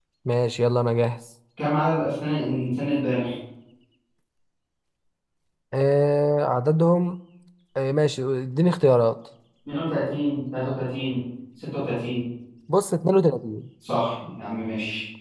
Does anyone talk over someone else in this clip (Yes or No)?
No